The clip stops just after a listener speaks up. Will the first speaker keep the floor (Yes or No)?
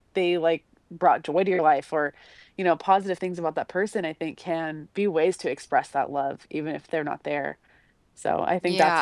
No